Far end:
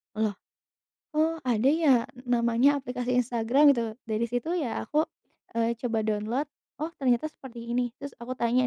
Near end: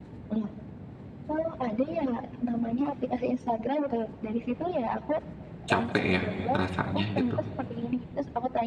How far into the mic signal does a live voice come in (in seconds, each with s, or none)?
5.7 s